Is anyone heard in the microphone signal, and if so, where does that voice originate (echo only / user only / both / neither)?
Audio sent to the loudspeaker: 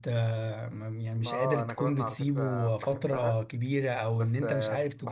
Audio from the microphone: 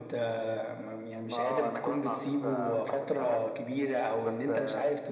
echo only